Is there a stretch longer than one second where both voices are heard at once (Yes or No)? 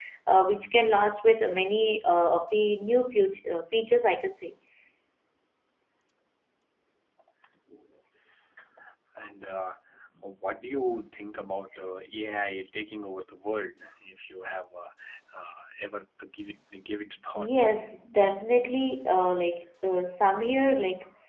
No